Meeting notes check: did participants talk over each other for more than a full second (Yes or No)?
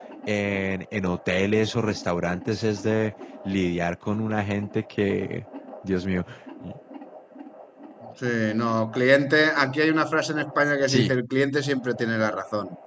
No